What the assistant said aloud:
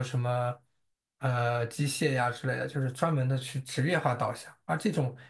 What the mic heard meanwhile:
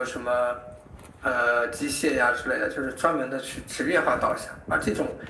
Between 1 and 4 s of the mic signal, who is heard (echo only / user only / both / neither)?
echo only